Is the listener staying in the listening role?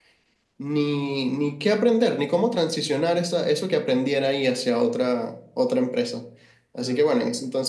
Yes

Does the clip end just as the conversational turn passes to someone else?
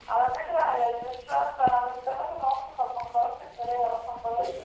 Yes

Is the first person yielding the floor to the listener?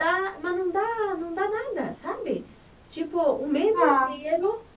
No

